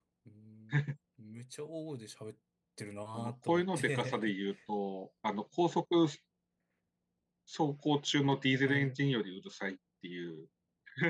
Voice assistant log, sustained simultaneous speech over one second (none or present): present